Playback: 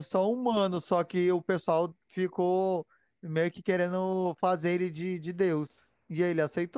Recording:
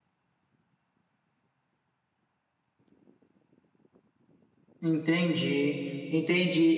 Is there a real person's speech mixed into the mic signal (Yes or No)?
Yes